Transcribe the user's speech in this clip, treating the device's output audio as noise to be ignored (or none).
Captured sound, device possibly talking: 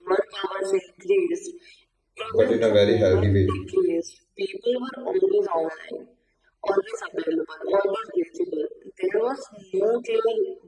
but in a very healthy way.